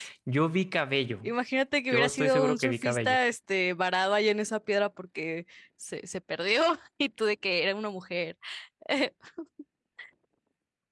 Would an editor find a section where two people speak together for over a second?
Yes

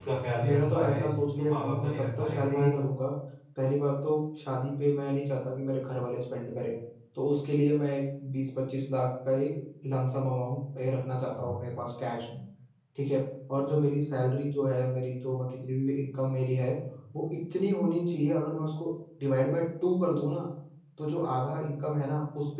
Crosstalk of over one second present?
Yes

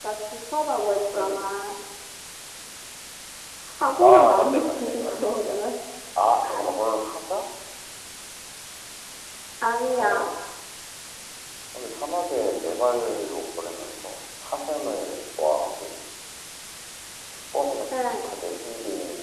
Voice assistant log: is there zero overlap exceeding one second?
No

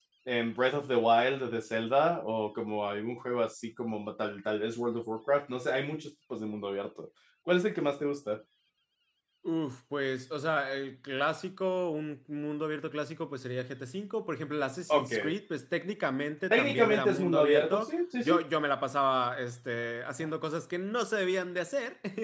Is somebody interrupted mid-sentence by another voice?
Yes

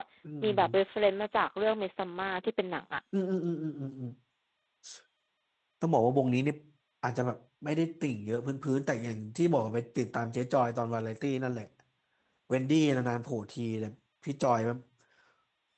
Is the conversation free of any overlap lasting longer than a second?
Yes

